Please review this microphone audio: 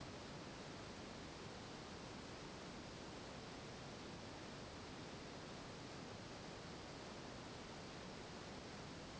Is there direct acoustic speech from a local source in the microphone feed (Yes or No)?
No